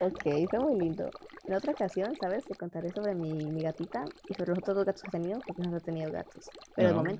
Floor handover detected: No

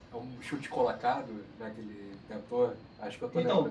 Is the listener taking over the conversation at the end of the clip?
Yes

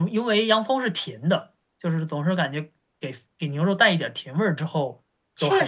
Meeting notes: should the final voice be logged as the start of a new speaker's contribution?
Yes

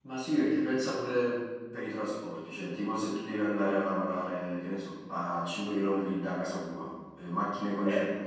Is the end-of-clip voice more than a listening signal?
No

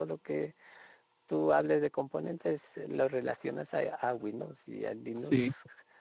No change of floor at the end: No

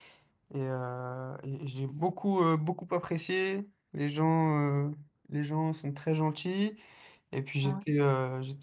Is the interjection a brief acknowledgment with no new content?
Yes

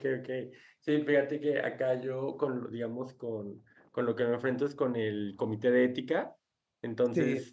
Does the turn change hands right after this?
No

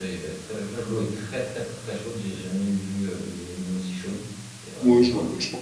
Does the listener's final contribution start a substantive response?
Yes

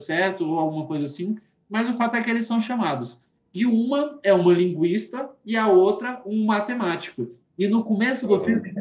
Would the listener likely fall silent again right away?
Yes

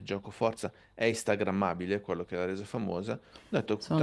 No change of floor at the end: Yes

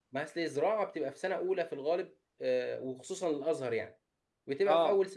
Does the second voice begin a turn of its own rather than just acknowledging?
No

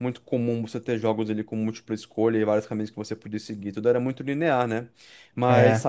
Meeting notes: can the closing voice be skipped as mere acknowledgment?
Yes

